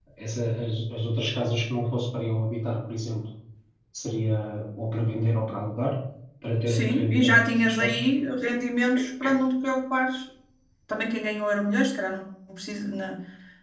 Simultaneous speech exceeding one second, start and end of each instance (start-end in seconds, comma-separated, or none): 6.7-7.9